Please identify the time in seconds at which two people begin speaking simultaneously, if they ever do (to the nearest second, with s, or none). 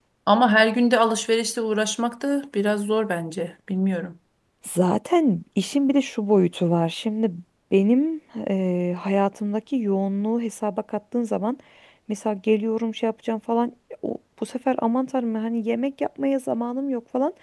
none